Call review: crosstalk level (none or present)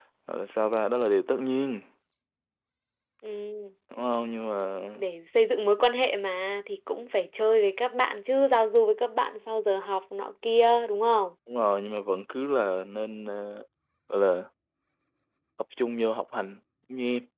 none